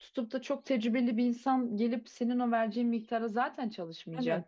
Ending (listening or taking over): taking over